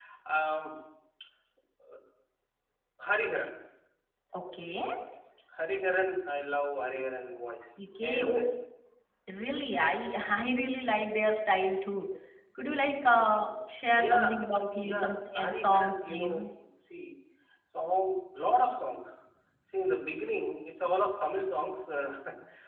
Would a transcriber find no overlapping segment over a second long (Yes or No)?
No